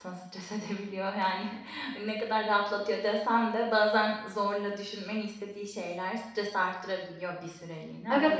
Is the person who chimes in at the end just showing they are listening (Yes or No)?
No